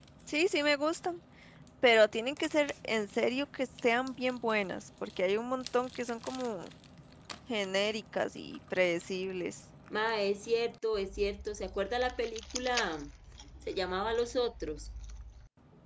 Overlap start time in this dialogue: none

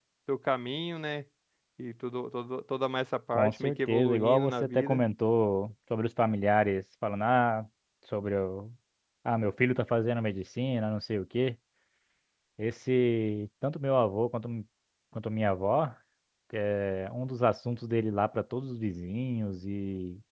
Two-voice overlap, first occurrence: 3 s

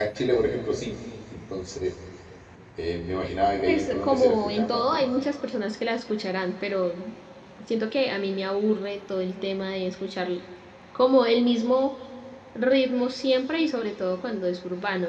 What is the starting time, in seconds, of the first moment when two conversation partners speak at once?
4 s

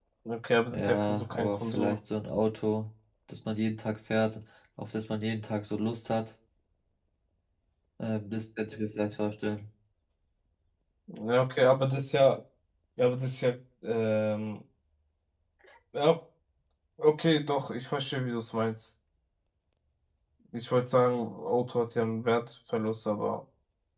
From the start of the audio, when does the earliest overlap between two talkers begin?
1 s

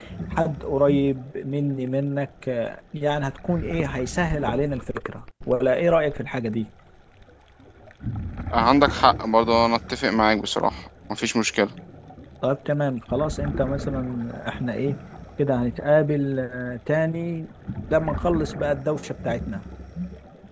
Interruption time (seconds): none

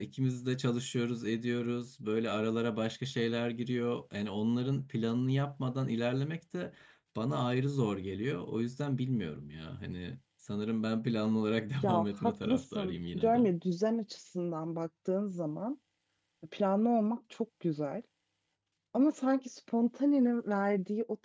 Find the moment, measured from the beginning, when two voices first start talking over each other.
12 s

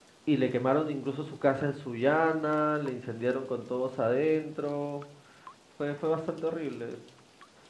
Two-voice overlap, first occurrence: none

